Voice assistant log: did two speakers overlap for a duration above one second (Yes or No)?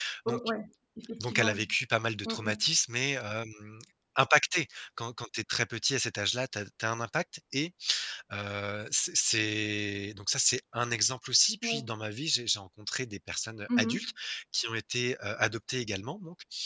No